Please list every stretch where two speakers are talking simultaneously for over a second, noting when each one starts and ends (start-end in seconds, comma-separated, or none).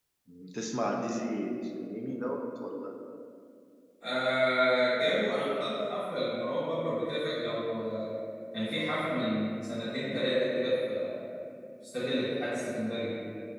none